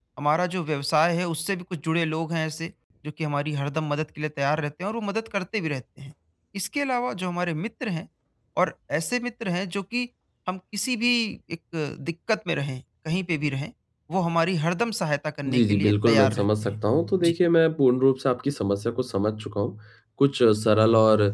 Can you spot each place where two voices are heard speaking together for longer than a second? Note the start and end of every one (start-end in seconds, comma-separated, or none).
15.5-16.8